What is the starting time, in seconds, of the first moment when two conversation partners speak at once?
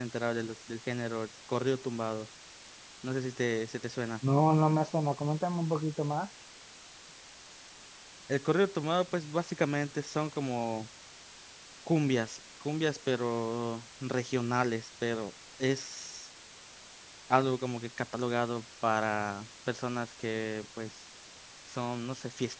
none

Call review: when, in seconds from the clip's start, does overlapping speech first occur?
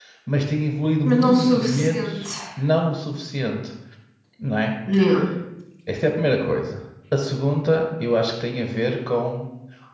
1.0 s

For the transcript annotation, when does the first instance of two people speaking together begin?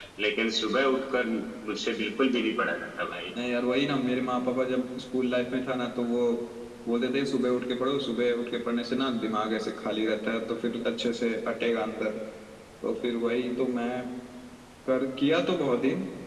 none

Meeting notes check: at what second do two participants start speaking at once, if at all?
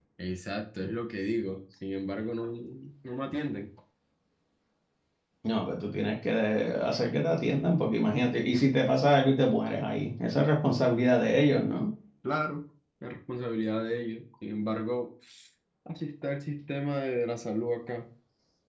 none

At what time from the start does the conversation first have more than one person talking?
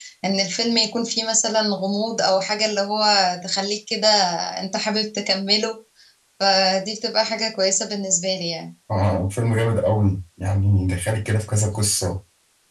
none

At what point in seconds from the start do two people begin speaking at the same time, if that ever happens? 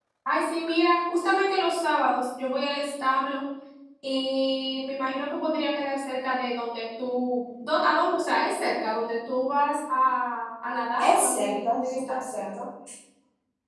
11.0 s

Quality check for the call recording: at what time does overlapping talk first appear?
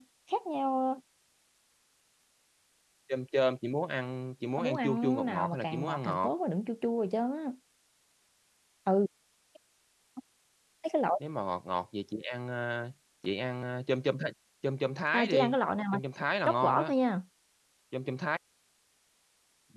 4.6 s

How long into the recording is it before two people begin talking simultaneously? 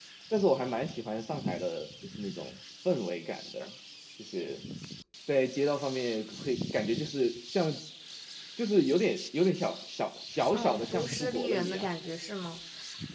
10.5 s

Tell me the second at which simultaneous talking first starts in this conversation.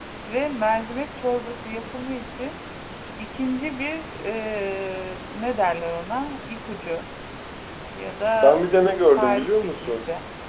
8.4 s

